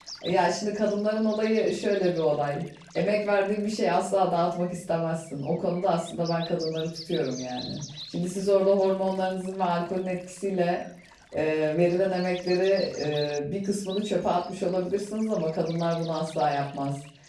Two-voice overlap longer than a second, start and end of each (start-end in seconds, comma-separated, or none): none